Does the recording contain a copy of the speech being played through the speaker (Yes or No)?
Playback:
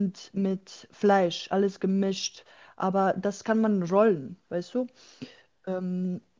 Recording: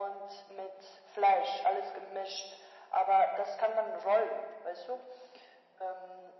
Yes